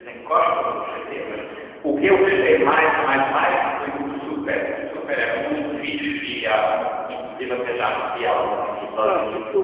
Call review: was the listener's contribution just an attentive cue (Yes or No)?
No